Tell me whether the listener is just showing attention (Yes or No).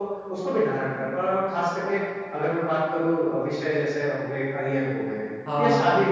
Yes